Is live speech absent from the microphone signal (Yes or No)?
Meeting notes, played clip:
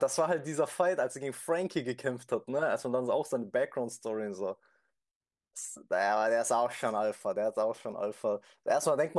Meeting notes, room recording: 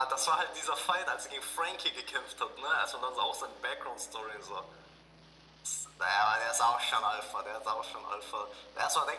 Yes